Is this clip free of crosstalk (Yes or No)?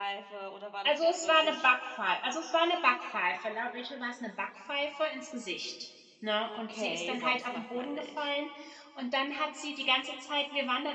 No